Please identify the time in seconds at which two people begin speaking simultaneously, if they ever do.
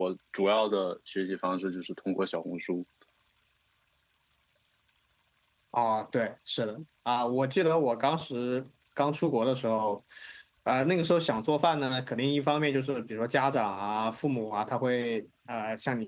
none

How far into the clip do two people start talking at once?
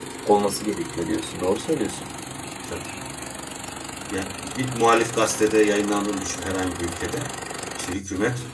none

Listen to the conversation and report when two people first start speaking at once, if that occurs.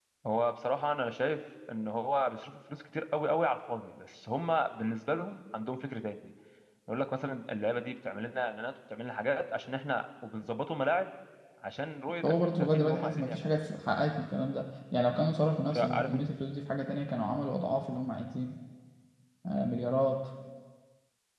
12.2 s

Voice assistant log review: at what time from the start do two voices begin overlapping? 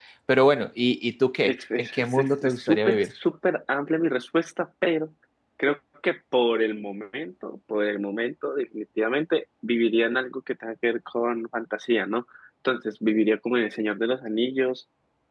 1.4 s

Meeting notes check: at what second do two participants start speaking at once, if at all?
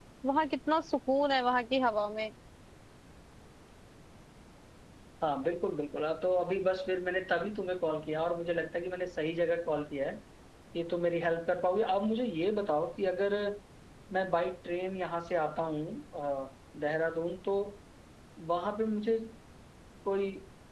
none

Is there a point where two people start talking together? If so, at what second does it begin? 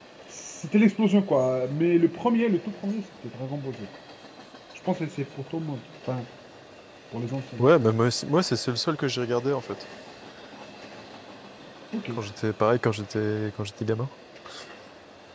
none

